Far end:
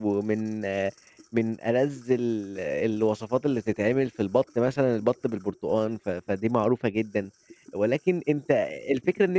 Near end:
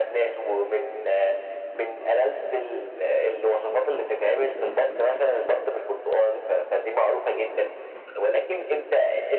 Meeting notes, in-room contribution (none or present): none